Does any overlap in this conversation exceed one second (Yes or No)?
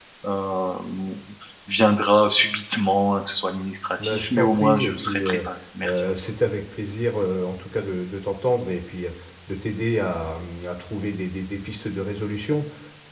Yes